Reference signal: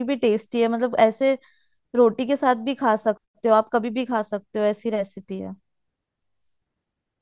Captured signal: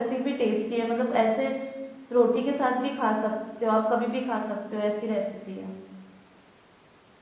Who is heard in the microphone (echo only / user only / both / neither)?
echo only